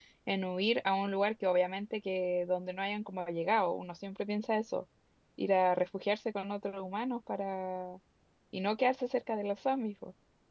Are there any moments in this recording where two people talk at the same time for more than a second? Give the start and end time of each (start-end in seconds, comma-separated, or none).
none